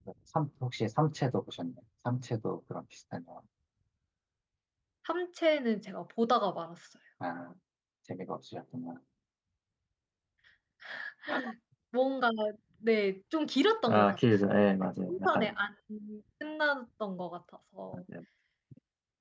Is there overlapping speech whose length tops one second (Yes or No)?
Yes